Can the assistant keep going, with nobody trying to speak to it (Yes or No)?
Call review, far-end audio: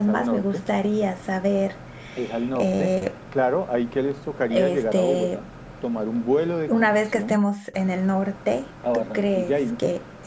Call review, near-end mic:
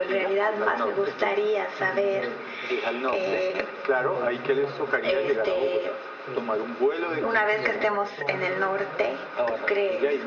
No